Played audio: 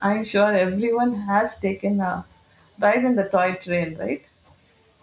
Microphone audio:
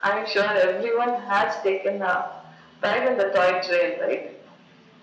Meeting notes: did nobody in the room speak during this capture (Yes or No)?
Yes